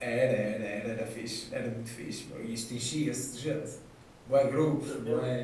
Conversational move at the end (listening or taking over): taking over